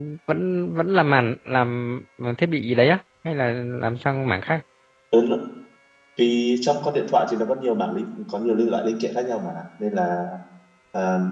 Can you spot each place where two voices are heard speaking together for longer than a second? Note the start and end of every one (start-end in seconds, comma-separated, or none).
none